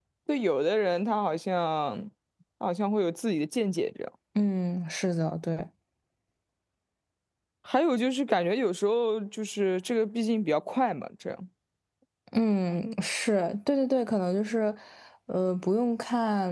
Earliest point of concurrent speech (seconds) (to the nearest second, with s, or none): none